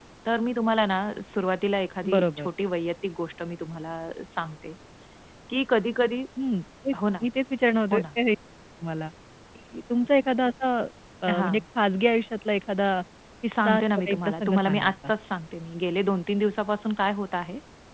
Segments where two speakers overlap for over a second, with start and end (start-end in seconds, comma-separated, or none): 13.7-14.9